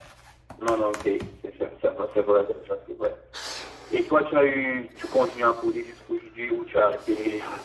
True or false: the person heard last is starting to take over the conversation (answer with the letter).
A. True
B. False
A